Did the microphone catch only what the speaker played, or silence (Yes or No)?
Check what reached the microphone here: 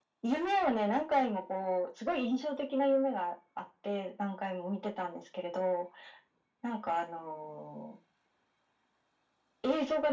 Yes